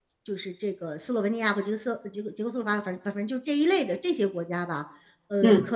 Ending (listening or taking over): listening